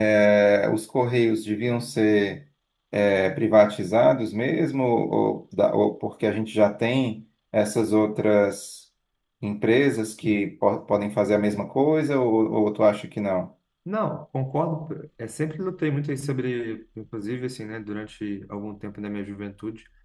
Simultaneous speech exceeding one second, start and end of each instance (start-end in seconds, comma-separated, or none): none